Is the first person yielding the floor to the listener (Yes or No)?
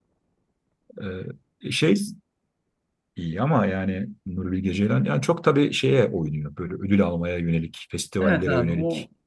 Yes